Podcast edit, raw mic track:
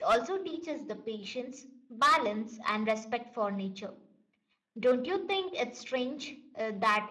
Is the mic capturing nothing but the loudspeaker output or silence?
No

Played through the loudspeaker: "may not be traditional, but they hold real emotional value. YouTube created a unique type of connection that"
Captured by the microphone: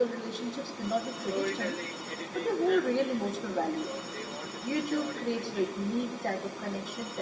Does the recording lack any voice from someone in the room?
No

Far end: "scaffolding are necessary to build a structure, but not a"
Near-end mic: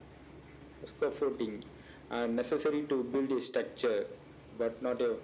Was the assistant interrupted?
No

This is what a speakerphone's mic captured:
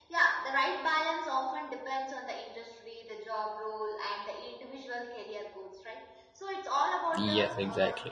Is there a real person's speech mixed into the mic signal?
Yes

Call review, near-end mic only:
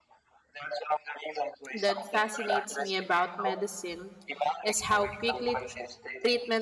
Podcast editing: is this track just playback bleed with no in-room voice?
No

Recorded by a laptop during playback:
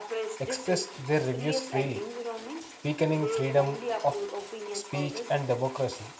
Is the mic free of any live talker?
No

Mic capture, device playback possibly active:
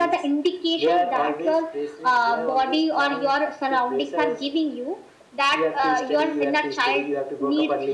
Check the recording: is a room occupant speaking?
No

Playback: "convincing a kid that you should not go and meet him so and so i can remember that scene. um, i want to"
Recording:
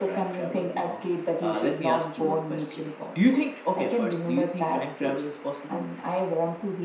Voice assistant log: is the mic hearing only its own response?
No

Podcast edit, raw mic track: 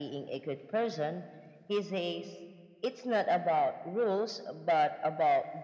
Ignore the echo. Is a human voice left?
No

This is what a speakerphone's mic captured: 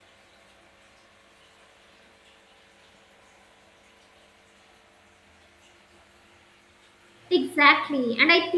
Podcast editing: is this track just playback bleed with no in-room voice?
No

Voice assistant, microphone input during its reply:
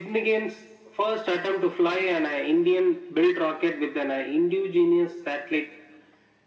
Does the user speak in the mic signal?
No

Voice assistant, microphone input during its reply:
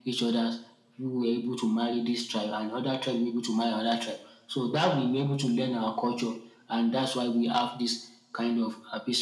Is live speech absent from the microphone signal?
Yes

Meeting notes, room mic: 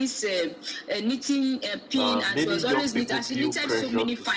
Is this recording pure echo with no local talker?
No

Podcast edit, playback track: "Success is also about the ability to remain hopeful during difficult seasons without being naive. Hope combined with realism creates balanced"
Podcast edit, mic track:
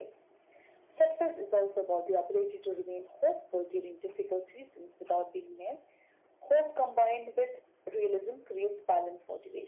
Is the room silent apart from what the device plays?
Yes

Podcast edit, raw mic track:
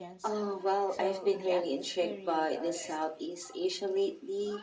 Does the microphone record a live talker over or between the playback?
Yes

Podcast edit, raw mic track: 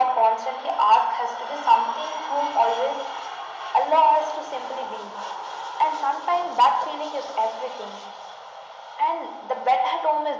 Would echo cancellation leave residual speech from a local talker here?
No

